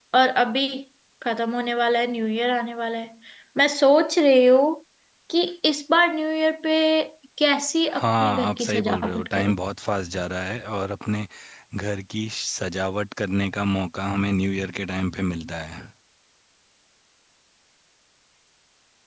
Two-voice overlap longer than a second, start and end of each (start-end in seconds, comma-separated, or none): 7.9-9.6